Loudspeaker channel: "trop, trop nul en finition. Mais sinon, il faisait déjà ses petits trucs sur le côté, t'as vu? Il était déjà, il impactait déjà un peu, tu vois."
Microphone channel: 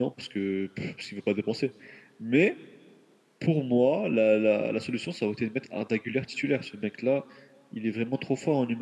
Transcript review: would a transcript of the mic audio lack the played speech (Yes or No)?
Yes